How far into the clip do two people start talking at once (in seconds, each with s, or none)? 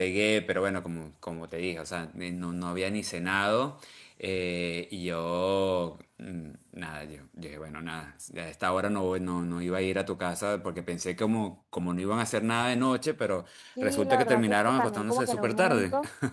13.8 s